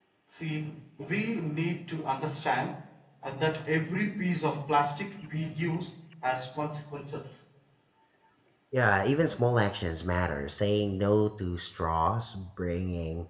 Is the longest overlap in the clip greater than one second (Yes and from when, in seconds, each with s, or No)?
No